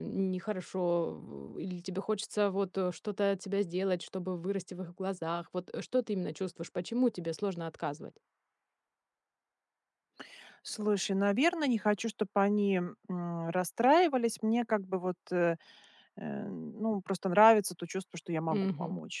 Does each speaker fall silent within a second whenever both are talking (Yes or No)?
Yes